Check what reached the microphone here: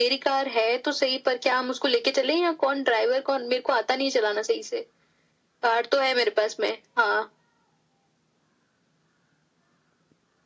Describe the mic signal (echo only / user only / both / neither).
echo only